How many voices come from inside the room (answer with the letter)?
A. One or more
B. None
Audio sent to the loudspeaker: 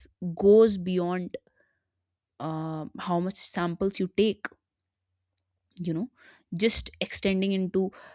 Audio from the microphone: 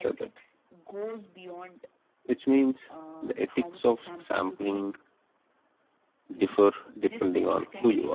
A